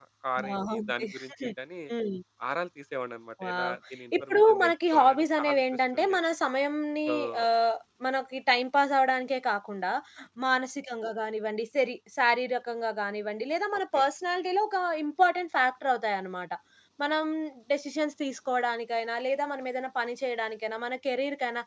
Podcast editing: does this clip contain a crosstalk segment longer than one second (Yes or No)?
Yes